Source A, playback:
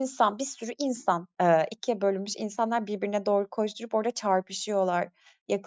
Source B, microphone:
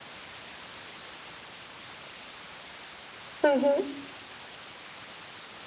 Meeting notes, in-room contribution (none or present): present